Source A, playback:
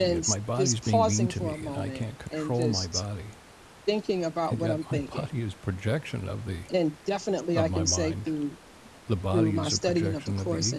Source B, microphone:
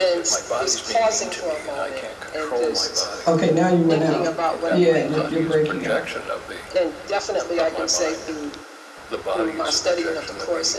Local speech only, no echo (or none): Okay, now you went out. Yeah, you're you're breaking up.